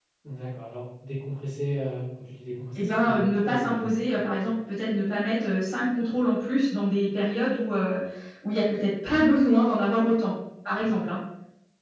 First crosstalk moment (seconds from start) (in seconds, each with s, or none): 2.8 s